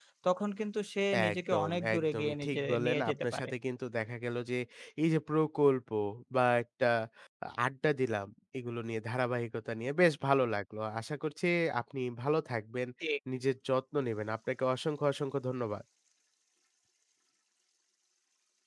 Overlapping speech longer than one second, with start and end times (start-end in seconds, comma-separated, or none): 1.3-3.5